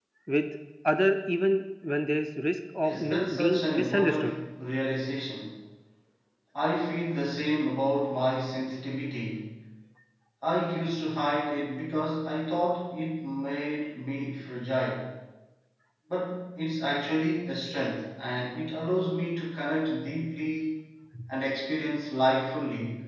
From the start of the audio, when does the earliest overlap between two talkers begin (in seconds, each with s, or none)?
2.8 s